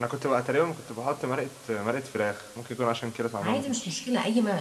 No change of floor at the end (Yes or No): No